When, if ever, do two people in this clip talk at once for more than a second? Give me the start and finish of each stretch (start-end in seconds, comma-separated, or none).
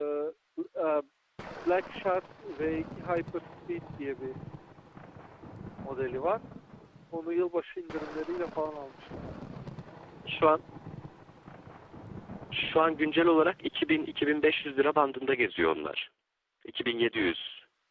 none